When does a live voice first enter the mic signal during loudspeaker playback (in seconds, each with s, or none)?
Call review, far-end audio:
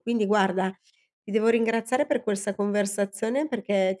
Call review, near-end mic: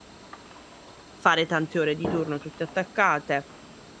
1.2 s